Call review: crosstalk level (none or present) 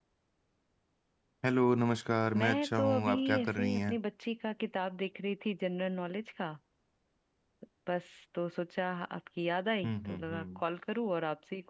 present